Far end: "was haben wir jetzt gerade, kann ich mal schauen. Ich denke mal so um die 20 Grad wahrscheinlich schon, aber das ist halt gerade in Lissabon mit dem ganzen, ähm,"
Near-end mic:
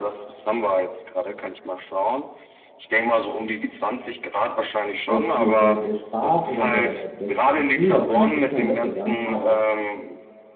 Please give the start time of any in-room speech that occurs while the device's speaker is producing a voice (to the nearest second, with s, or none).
5 s